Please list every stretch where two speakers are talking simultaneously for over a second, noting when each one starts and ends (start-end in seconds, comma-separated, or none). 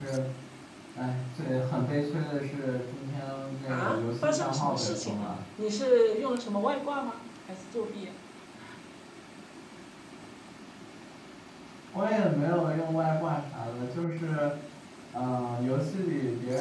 3.7-5.3